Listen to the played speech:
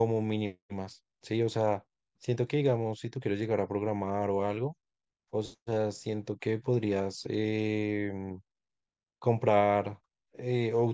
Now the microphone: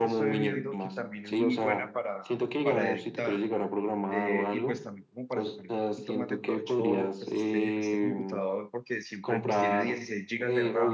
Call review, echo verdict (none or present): present